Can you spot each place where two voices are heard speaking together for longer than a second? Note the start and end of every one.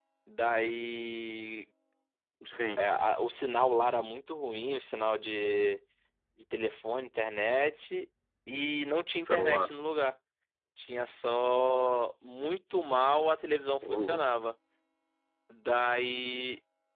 none

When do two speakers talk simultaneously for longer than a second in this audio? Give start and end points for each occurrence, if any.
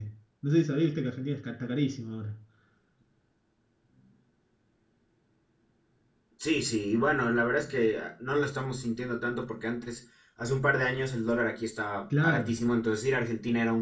none

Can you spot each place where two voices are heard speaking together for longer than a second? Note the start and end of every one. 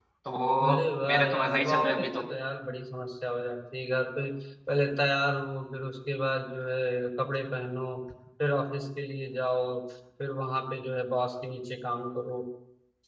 0.7-2.2

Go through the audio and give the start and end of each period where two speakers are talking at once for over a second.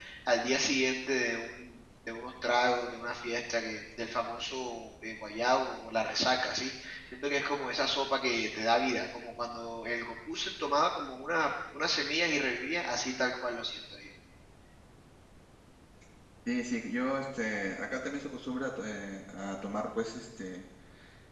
none

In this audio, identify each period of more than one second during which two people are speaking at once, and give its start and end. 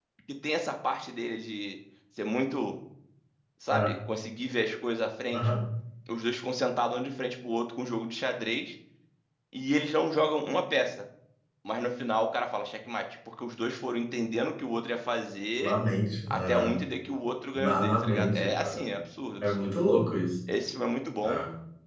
17.5-18.9

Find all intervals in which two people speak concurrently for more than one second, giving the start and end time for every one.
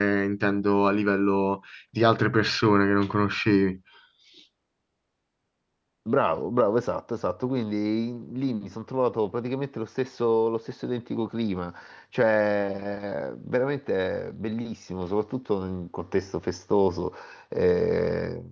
none

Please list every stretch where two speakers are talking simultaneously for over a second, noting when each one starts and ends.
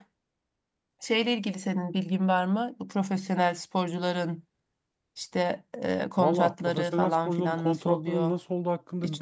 6.2-8.4

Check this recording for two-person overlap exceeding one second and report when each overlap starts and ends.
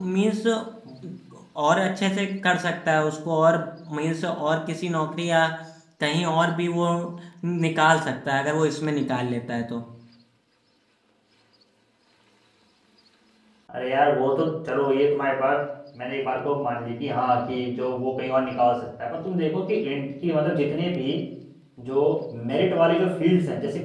none

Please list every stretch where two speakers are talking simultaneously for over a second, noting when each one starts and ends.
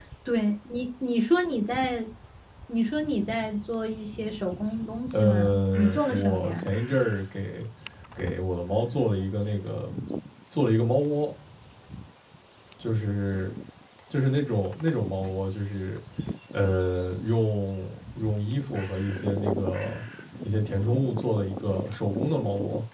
5.1-6.7

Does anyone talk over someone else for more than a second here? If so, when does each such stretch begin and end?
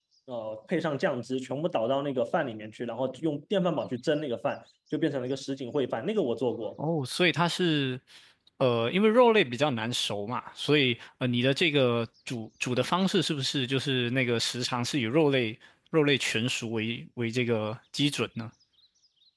none

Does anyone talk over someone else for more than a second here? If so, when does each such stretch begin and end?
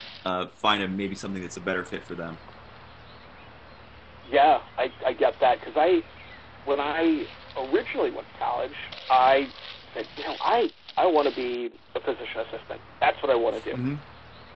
none

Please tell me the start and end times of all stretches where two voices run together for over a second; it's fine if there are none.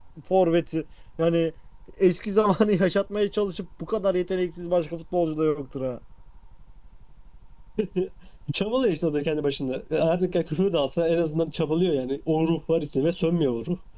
none

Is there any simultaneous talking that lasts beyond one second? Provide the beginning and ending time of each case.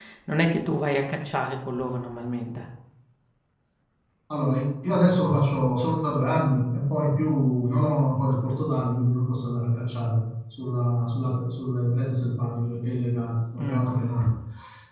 none

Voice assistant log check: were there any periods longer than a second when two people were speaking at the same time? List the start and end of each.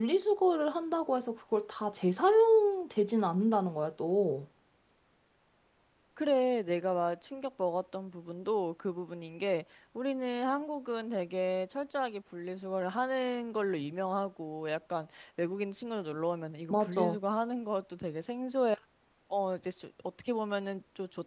none

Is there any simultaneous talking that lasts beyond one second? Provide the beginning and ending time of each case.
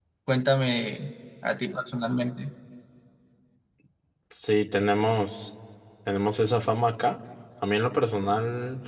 none

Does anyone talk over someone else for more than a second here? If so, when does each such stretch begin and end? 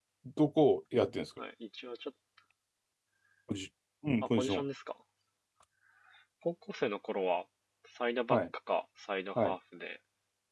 none

